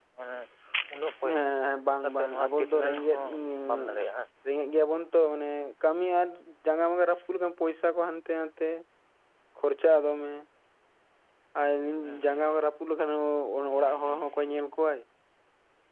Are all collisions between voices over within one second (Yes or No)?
No